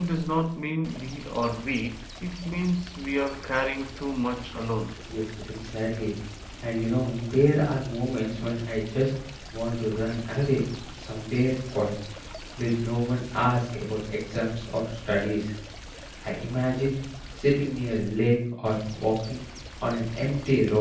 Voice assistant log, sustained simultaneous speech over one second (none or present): none